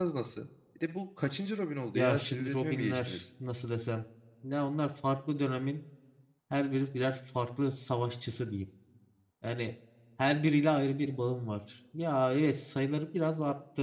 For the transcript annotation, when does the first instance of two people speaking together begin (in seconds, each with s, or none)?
2.0 s